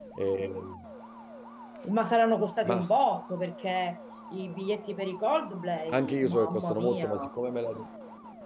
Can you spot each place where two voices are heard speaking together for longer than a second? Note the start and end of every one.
5.9-7.3

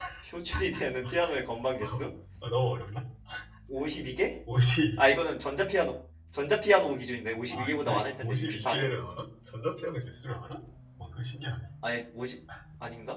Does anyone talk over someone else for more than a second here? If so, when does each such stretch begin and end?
7.5-8.9

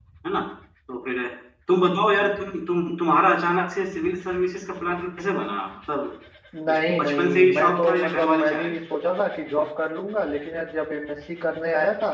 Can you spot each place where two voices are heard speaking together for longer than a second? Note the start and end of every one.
6.7-8.7

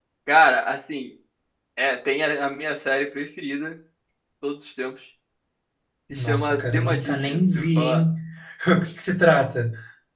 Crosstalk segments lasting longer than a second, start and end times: 6.1-8.0

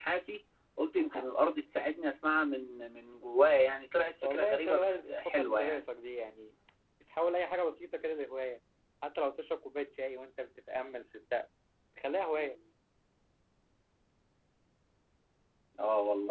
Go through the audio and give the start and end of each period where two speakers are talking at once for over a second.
4.2-5.8

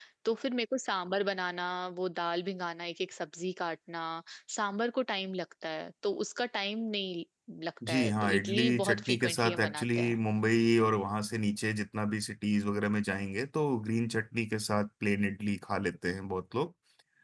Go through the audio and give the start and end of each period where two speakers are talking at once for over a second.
7.9-10.2

